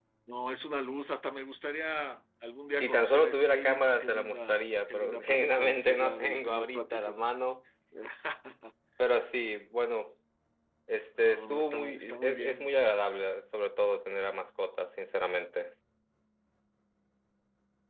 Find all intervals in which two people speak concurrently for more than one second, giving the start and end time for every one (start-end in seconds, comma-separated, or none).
2.8-7.2, 11.2-12.7